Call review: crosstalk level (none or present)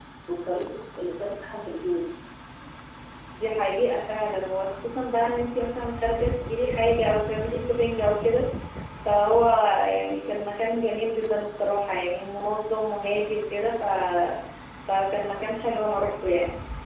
none